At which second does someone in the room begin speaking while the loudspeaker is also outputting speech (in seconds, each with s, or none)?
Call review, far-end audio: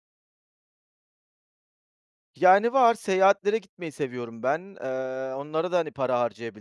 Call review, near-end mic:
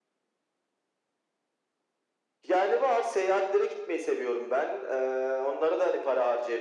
none